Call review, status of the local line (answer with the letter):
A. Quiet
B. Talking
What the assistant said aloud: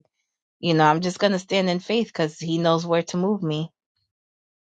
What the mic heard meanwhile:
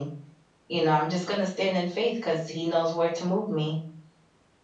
A